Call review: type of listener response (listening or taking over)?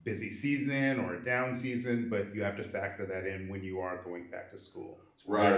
taking over